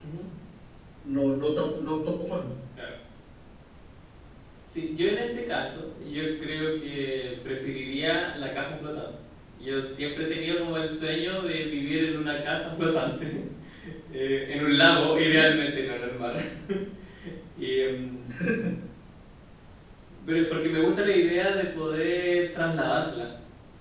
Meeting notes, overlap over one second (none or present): none